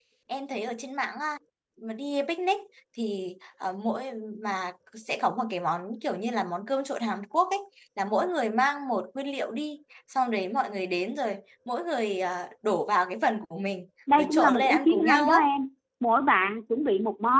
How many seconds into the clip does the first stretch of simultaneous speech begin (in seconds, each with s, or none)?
14.1 s